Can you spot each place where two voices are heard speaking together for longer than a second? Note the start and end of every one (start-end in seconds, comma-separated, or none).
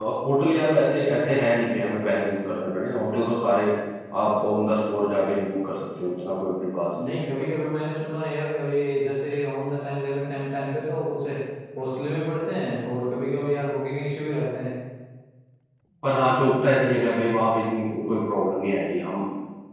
none